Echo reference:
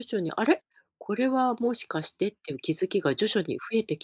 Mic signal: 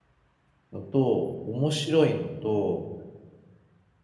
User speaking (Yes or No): Yes